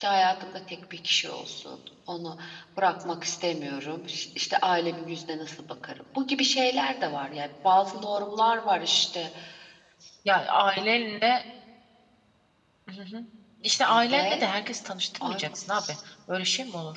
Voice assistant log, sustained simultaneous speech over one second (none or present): none